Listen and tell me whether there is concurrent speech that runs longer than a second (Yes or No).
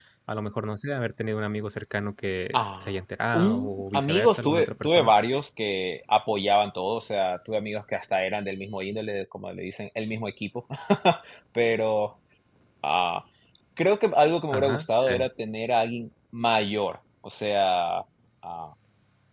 Yes